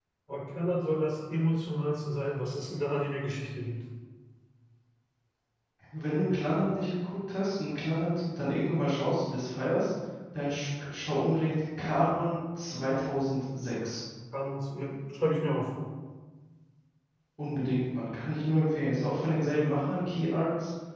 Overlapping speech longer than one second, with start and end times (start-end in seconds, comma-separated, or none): none